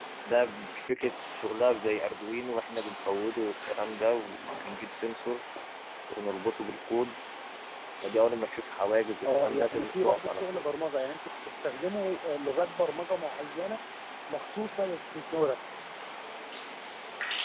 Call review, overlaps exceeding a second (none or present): present